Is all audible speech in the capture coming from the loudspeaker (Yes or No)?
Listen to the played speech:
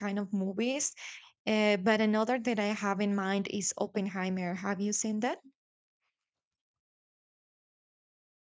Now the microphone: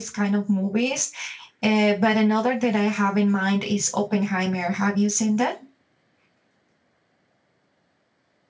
Yes